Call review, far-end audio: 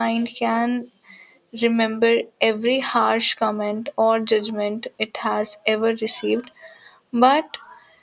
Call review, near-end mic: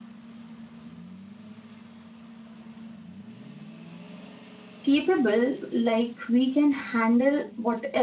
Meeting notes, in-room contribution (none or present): present